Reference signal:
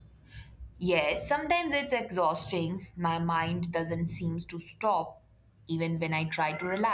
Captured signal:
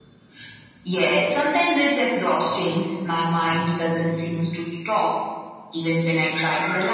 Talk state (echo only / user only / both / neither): echo only